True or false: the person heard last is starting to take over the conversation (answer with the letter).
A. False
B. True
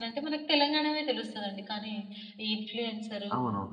A